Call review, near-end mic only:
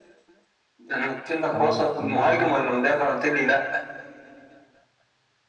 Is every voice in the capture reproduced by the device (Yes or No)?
No